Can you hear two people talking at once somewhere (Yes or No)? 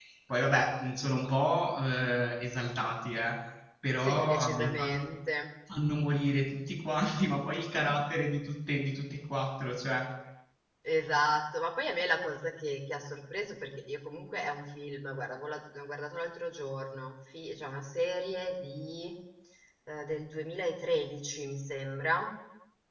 Yes